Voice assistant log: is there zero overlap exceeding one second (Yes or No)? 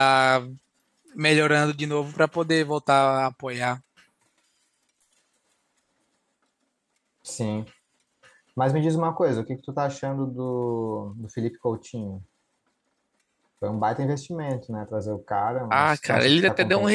No